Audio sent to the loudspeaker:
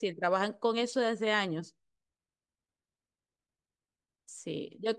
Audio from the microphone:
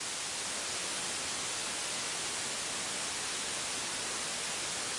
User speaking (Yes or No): No